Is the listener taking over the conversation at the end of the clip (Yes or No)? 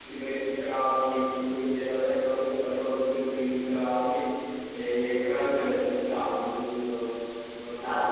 Yes